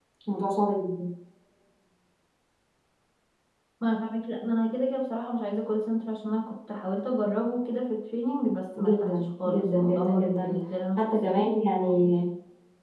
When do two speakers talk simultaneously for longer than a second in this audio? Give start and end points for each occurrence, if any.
8.8-10.6

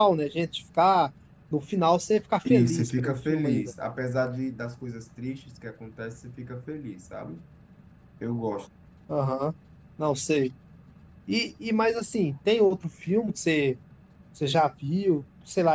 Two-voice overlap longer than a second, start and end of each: 2.5-3.7

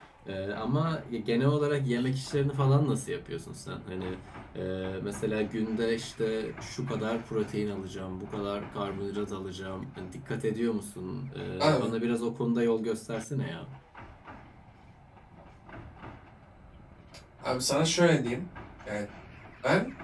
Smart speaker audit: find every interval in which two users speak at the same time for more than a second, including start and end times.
none

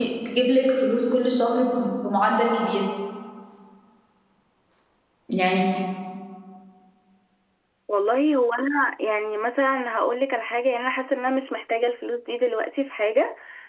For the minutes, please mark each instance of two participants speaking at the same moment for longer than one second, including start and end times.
none

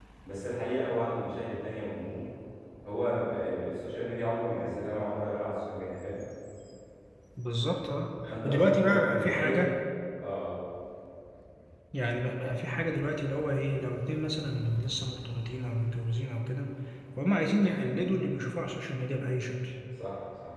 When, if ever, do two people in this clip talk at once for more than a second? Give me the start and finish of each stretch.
8.3-9.7

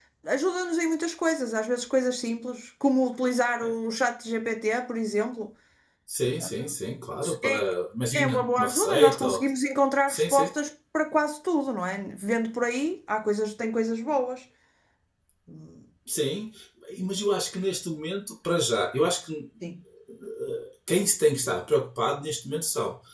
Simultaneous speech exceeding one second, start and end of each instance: 8.1-9.4

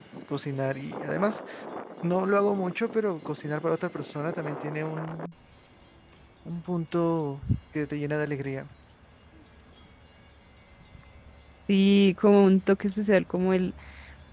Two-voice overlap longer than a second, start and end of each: none

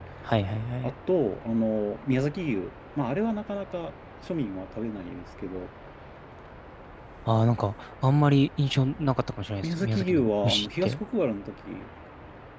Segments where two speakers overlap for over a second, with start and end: 9.6-11.0

